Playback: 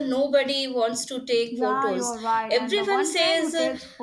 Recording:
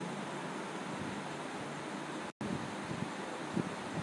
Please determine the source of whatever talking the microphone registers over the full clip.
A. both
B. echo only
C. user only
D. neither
D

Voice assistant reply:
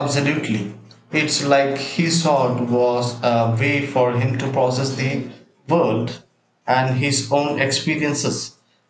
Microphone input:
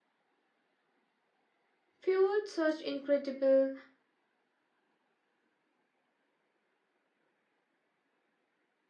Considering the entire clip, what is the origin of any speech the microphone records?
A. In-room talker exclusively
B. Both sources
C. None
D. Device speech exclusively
A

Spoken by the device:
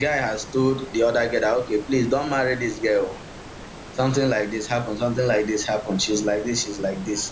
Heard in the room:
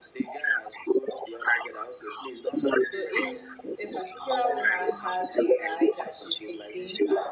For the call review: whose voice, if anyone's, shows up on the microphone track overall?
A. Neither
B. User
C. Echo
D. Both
D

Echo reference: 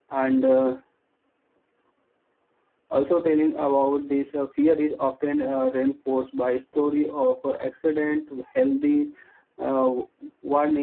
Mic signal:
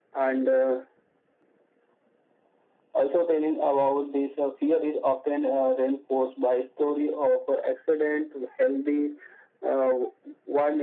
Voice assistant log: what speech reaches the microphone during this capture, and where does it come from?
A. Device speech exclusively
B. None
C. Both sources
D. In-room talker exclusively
A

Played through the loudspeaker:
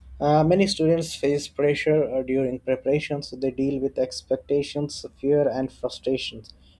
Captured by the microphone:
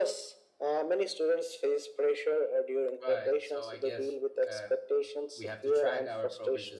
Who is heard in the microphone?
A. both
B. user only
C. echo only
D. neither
A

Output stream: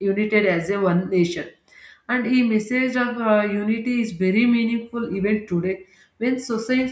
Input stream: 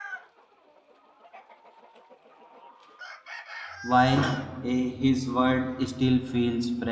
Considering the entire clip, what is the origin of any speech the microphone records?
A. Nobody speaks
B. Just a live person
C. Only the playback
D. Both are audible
B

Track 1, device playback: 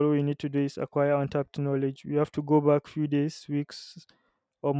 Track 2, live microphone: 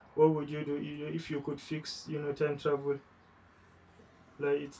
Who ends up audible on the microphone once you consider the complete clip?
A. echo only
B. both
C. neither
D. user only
D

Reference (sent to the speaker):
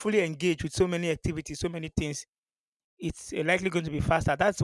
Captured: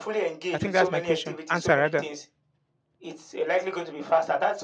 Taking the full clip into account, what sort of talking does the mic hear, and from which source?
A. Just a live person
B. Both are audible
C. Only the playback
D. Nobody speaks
B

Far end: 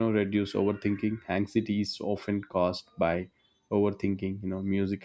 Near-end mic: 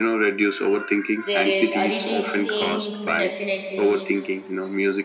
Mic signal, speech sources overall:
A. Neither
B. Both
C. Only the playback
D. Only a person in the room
B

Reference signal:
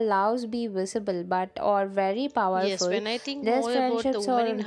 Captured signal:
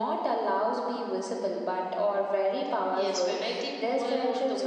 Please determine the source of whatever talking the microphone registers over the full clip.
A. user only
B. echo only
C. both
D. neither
B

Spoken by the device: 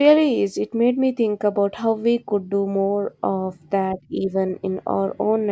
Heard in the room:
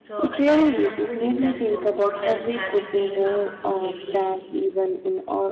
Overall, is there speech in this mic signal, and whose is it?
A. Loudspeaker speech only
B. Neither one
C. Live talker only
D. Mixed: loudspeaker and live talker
D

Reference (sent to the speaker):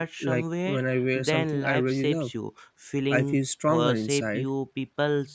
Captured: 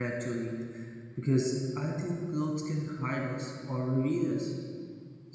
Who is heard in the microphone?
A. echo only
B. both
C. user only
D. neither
C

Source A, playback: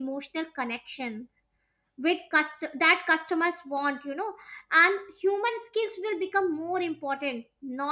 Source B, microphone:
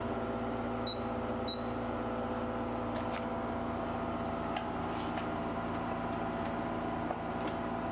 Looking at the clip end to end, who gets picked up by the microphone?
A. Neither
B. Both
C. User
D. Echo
A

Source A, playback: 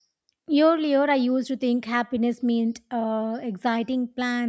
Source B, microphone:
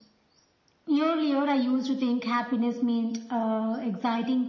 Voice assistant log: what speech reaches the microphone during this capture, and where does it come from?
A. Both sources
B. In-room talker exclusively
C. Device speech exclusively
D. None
C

